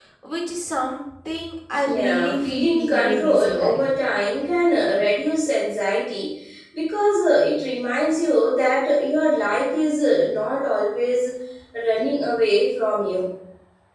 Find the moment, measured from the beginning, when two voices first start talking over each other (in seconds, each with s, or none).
1.8 s